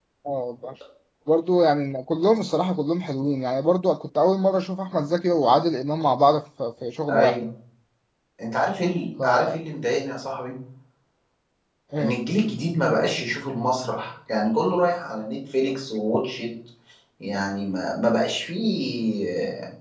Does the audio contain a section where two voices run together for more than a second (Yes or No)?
No